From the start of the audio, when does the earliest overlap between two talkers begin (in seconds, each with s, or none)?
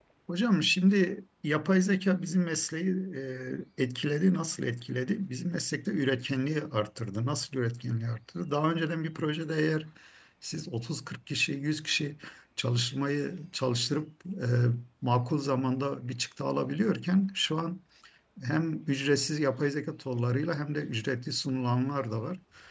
none